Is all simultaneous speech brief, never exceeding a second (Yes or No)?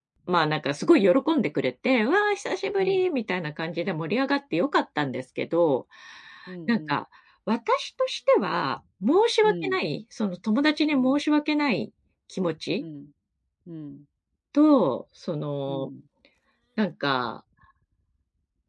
Yes